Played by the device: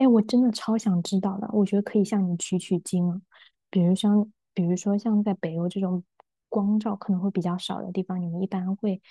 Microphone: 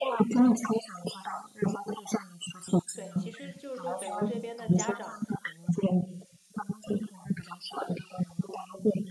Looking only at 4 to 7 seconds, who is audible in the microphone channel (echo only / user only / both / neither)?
both